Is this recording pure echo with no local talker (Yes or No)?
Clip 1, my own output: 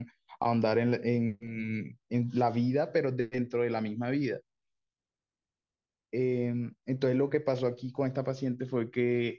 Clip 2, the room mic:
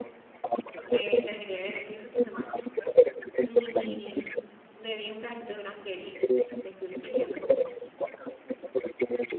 No